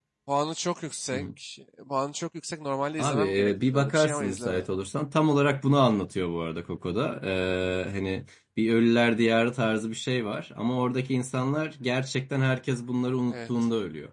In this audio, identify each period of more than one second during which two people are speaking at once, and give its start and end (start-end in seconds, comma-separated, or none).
3.0-4.7